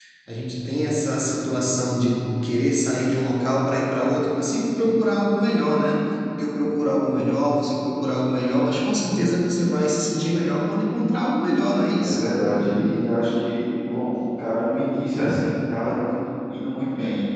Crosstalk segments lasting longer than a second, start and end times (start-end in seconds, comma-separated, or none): none